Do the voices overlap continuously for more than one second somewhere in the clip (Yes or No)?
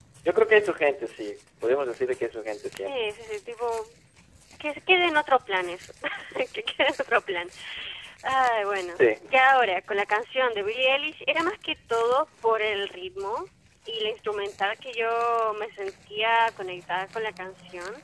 No